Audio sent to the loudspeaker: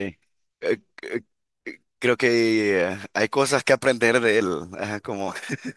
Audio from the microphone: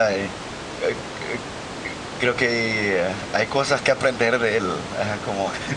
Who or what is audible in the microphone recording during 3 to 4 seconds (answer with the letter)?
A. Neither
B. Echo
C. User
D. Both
B